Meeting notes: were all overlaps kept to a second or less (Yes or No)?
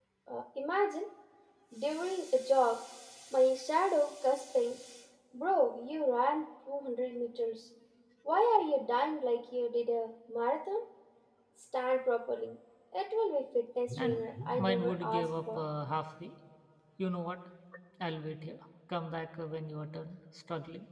No